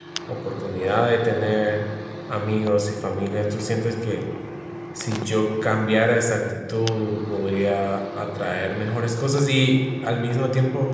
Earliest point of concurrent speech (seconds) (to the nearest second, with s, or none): none